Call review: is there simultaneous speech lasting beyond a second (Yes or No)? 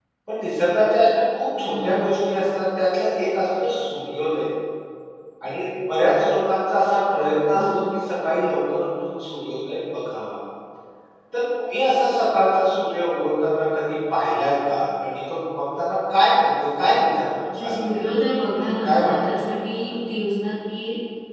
Yes